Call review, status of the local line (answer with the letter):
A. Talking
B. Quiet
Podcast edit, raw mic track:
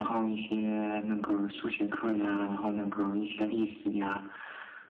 B